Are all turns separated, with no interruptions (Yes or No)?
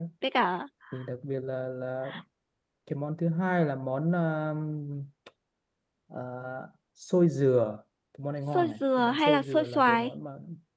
No